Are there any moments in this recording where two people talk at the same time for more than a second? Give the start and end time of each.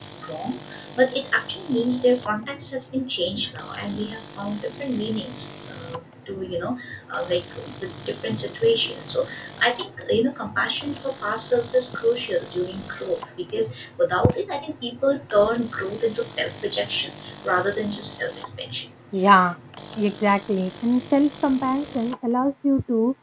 none

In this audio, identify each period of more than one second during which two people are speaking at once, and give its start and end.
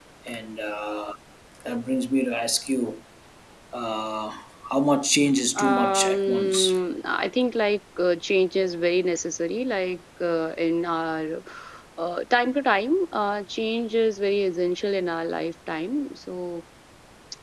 5.5-6.8

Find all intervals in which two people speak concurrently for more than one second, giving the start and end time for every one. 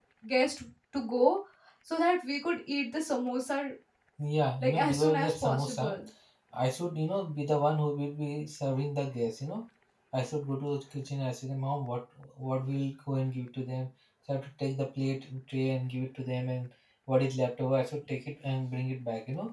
4.6-5.9

